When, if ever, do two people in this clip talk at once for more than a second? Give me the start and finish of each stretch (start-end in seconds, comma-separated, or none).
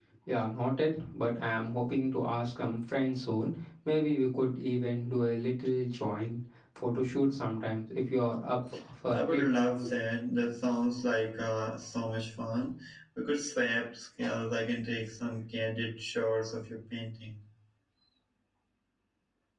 none